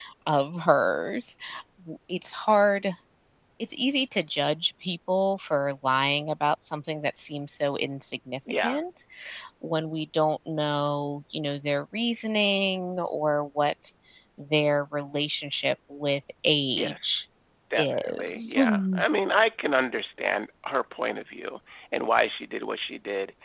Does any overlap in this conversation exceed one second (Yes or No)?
Yes